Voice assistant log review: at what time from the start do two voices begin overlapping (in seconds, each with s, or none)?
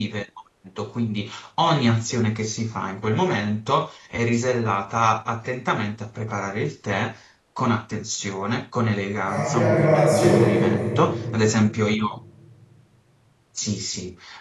9.2 s